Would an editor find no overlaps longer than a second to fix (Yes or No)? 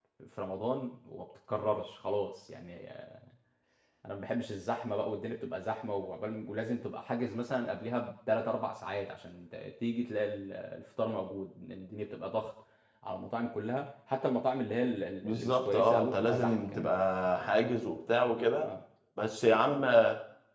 No